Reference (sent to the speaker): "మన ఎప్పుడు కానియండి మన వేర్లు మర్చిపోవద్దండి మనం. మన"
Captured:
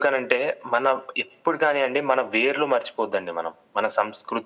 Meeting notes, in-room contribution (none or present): none